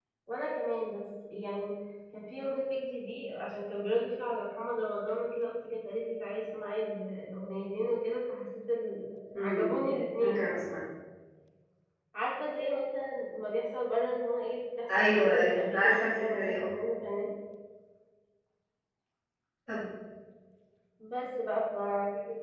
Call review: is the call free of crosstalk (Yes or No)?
No